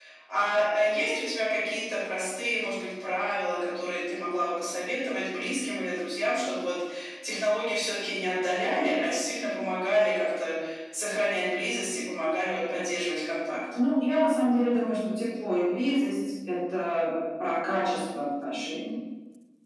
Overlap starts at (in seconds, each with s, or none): none